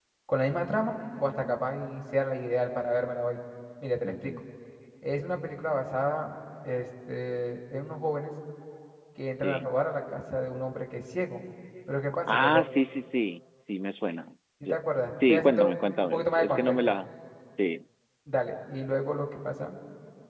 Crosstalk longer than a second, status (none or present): present